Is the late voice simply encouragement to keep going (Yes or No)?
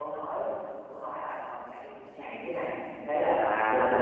No